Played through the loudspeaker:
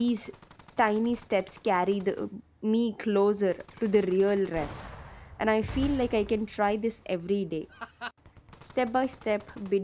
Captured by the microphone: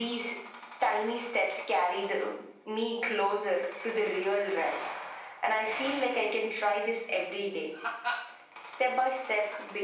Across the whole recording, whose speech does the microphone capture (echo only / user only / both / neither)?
echo only